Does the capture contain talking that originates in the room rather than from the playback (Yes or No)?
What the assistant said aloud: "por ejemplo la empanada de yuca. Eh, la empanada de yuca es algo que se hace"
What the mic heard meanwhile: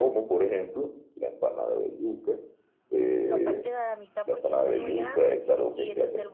Yes